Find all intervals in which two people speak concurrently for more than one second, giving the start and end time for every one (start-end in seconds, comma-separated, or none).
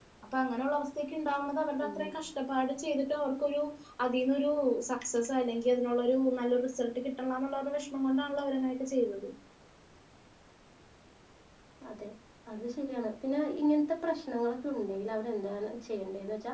none